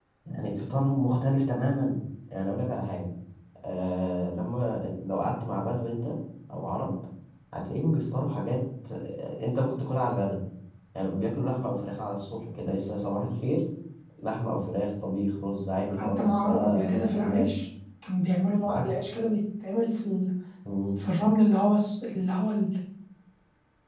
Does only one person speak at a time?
No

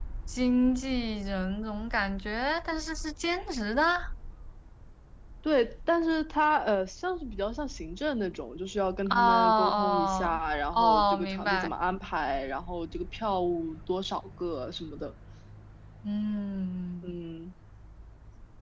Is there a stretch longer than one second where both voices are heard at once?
Yes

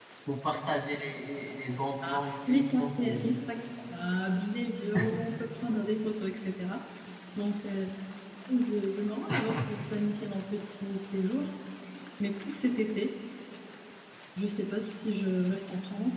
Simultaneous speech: Yes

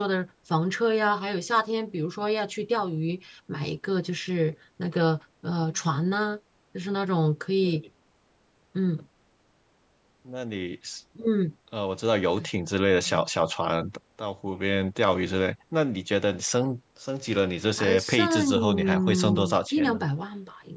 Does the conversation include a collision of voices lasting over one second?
Yes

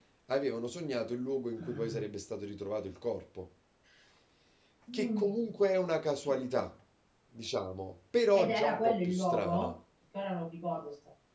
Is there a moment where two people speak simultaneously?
Yes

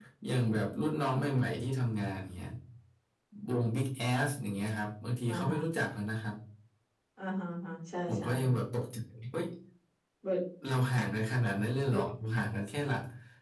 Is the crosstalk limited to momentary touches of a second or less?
Yes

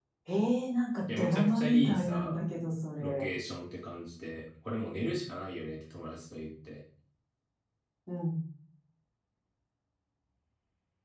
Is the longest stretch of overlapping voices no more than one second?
No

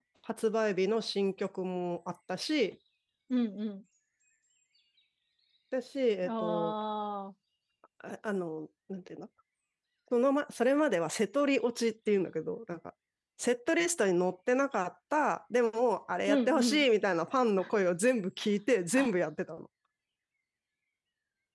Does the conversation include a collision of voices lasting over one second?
No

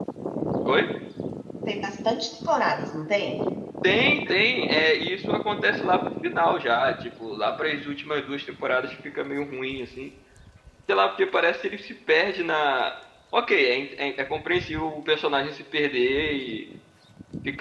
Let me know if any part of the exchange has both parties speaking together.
No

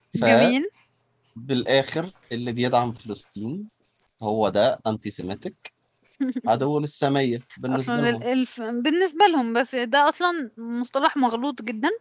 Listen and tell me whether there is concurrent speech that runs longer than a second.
No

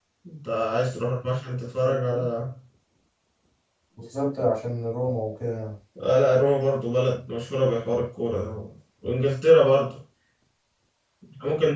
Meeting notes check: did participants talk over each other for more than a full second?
No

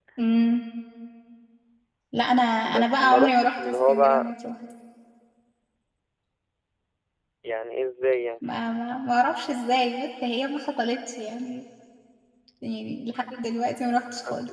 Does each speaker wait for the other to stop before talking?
No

